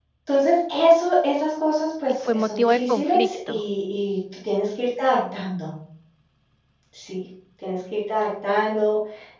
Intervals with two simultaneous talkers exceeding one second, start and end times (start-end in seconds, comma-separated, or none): 2.1-3.6